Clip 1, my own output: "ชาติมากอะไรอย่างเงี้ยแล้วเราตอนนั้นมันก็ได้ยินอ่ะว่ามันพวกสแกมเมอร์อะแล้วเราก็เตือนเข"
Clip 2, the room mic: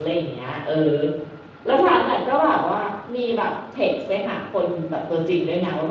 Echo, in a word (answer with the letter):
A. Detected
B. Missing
B